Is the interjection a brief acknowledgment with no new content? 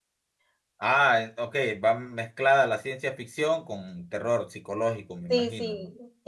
No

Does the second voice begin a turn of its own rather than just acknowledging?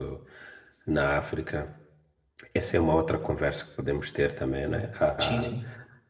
No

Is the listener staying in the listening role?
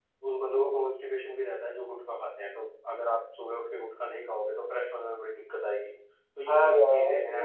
No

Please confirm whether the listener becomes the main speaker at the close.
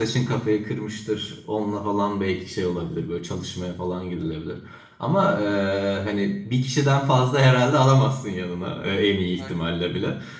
No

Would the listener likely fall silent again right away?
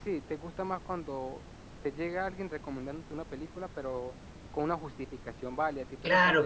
No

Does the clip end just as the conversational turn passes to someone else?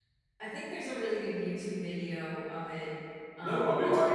Yes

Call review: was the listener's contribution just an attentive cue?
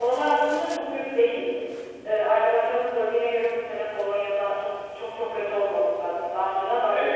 No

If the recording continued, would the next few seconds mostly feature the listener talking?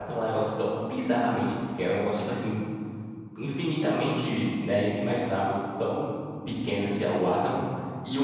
No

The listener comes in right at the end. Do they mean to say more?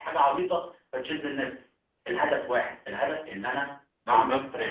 Yes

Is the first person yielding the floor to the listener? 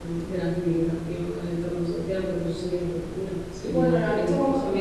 Yes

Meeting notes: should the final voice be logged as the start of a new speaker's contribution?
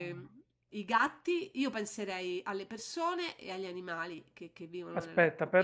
Yes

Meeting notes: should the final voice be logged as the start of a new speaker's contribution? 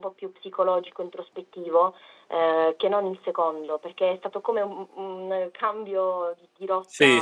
Yes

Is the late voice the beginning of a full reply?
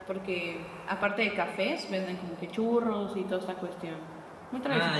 Yes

